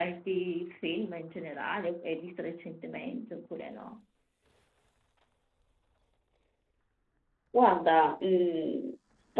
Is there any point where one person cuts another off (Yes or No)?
No